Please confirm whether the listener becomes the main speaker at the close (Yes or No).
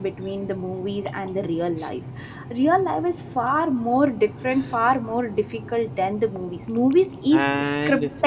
Yes